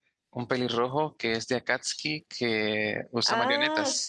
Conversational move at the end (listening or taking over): taking over